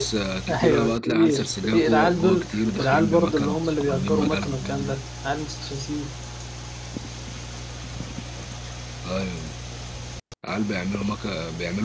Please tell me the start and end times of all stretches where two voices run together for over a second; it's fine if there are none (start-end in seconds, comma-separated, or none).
0.6-5.0